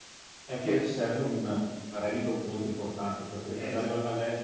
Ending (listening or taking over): listening